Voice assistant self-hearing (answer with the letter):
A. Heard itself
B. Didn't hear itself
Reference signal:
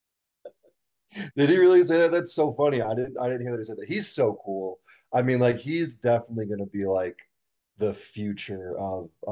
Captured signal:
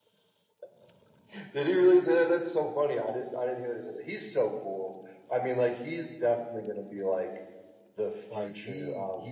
A